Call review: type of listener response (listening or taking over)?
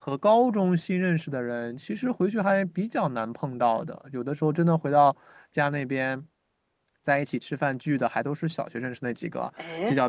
listening